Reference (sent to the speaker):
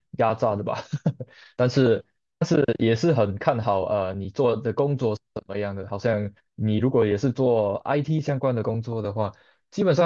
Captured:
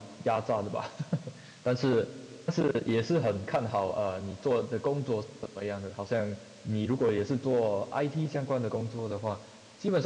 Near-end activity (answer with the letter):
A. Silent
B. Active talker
A